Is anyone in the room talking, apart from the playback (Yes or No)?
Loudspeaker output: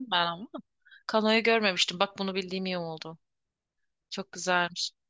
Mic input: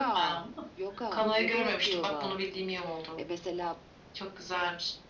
Yes